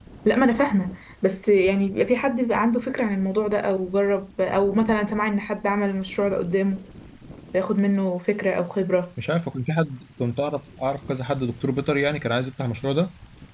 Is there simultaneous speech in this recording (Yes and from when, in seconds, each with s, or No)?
No